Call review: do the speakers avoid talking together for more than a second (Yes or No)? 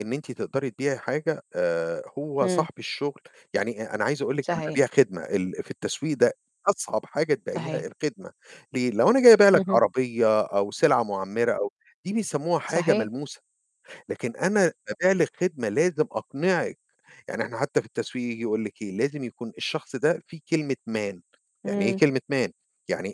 Yes